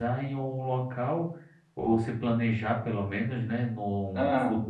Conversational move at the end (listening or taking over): listening